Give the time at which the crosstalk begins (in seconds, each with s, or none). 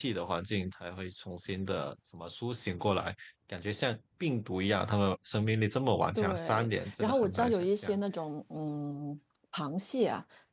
6.2 s